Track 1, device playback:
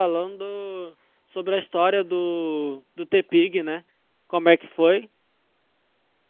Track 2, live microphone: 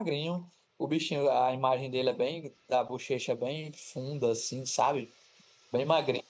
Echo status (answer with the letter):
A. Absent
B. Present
A